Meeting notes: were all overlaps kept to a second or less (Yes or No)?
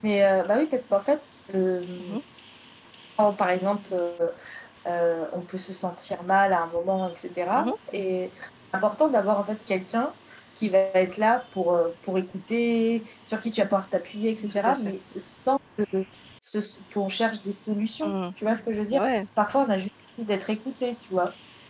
Yes